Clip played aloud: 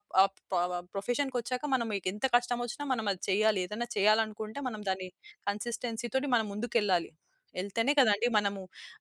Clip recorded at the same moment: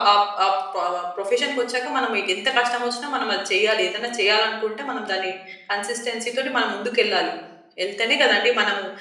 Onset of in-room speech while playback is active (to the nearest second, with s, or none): none